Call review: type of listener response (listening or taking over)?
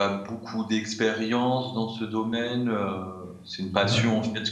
listening